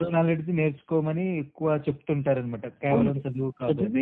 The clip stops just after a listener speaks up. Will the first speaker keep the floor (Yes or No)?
No